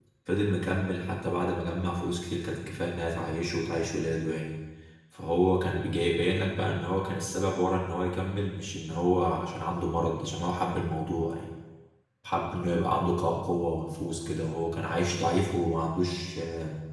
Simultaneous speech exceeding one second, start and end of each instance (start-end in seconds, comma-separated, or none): none